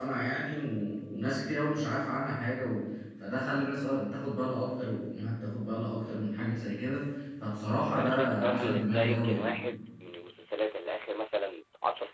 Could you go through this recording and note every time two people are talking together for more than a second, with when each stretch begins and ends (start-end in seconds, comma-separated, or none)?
8.0-9.6